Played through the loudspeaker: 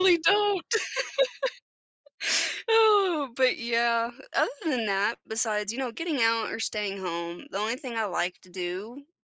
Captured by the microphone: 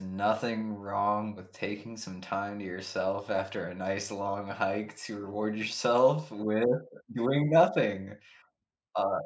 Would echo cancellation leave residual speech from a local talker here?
Yes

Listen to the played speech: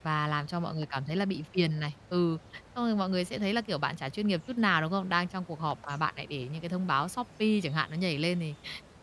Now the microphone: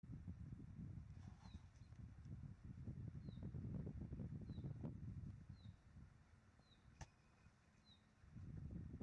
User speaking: No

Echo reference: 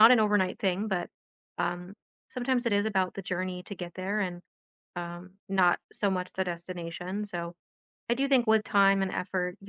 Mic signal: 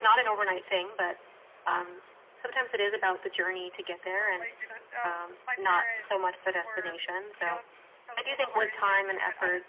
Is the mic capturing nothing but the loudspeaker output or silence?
No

